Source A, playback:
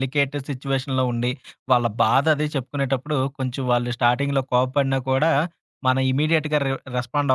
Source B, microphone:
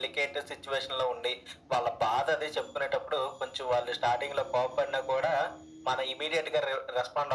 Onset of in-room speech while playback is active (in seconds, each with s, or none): none